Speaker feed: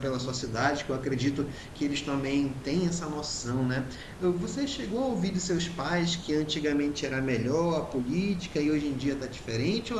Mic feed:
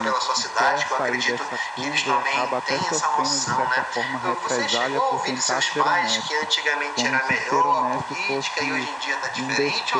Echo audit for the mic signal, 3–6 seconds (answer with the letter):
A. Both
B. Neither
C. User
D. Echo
A